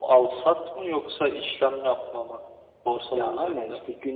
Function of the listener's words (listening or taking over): taking over